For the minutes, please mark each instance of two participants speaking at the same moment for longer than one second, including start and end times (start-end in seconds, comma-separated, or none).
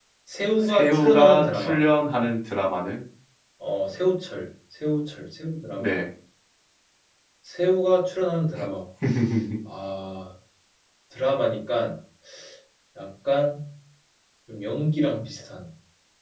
0.6-1.8